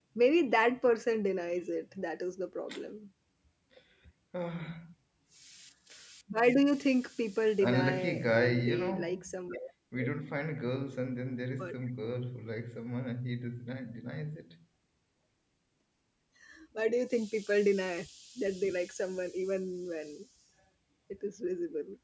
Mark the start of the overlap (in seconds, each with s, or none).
7.6 s